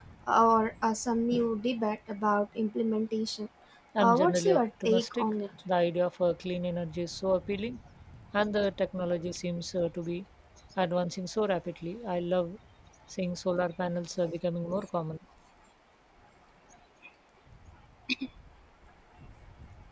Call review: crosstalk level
present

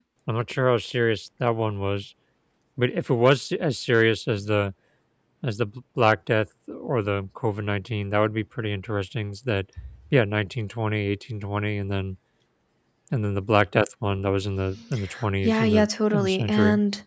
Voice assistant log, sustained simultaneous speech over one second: present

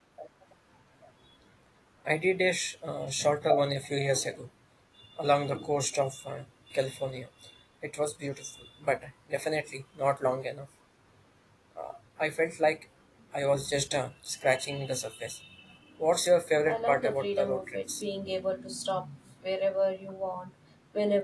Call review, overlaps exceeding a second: present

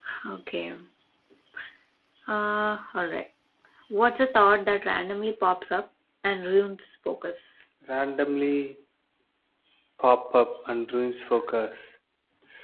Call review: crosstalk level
none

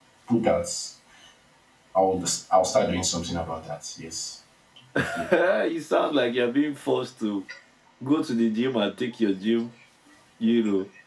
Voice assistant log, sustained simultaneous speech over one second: none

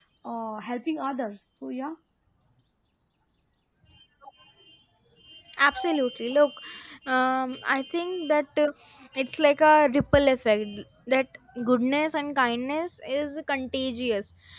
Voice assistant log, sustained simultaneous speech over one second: none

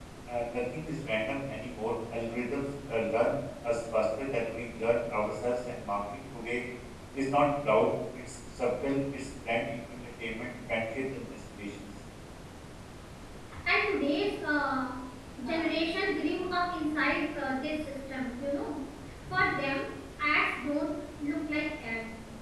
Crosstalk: none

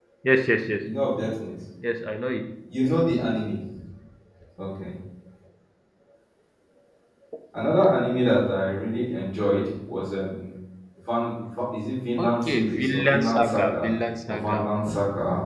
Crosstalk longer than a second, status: present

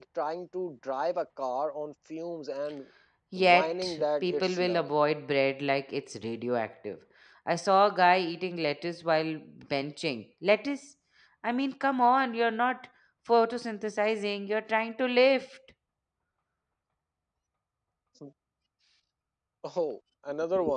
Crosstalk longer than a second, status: present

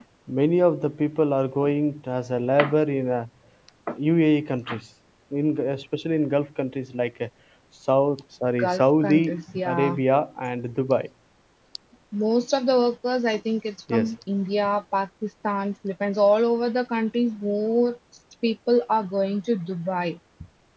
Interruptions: present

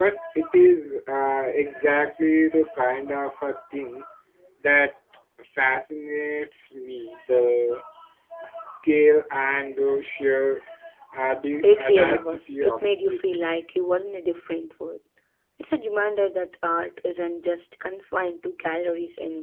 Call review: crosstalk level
present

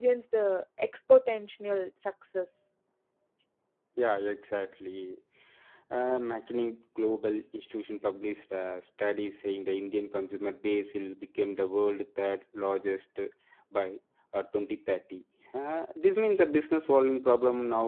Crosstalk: none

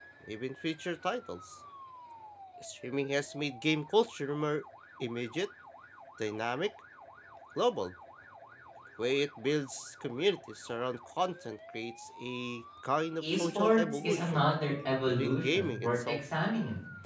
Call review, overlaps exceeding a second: present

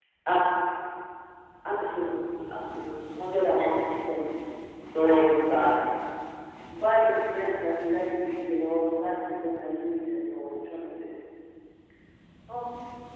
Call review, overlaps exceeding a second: none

